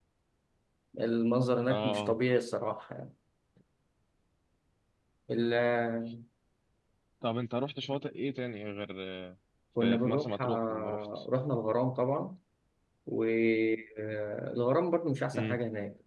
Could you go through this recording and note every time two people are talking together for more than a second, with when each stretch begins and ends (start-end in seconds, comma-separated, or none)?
9.8-11.2